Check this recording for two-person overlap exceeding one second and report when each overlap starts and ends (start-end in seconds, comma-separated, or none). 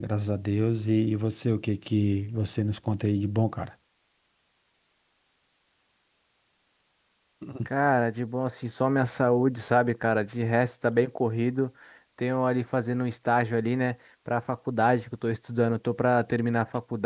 none